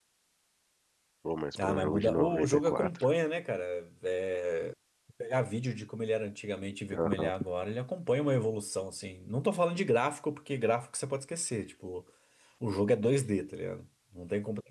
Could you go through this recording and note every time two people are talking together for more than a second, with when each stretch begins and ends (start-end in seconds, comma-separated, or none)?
1.6-3.0